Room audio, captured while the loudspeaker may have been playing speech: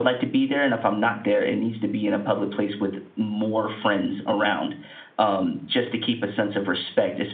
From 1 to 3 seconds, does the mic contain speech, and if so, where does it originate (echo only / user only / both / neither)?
echo only